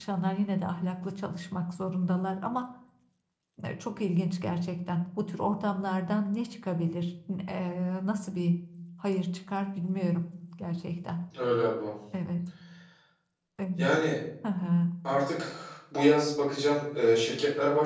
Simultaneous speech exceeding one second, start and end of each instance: none

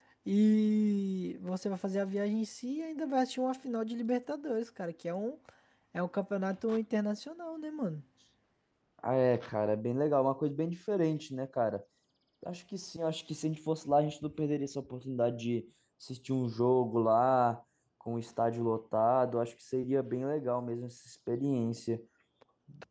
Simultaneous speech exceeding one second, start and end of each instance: none

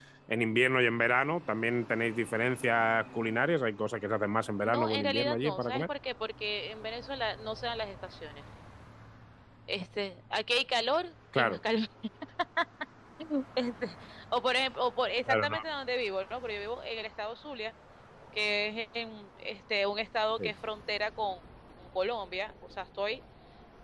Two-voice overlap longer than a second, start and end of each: 4.6-5.9

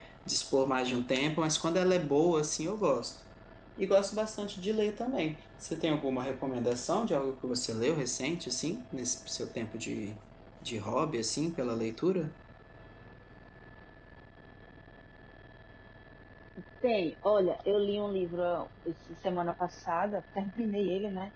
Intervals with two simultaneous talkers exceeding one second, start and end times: none

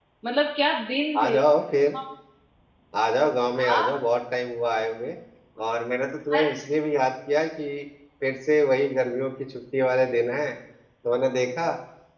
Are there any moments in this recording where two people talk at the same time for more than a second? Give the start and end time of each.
none

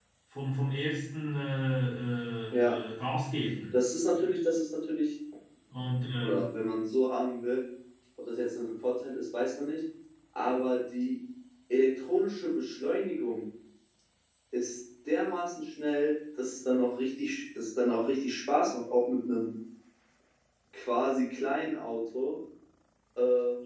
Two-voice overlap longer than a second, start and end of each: none

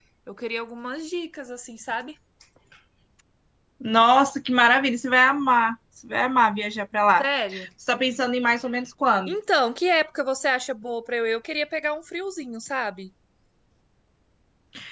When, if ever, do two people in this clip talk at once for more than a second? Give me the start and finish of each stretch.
none

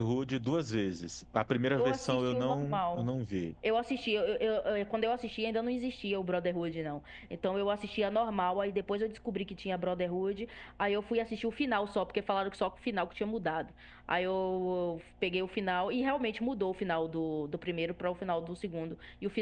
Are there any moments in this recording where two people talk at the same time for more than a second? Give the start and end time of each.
1.8-3.1

